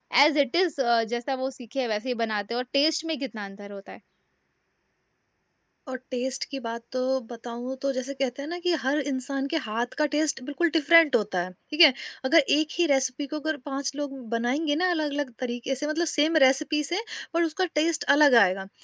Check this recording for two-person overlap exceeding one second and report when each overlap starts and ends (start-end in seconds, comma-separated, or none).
none